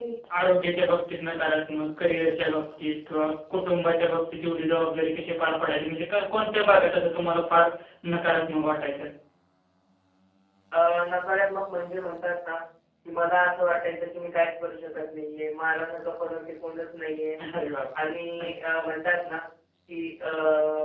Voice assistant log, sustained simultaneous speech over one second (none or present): none